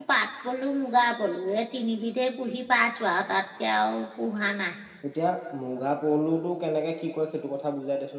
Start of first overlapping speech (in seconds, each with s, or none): none